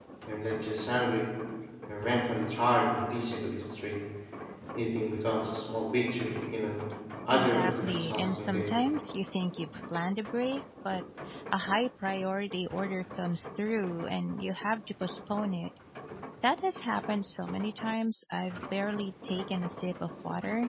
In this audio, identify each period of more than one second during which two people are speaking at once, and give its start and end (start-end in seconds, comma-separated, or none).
7.3-8.7